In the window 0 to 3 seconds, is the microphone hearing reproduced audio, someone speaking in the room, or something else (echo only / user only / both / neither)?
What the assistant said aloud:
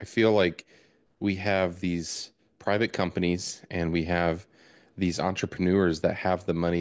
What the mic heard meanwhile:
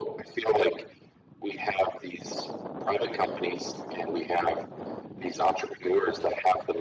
echo only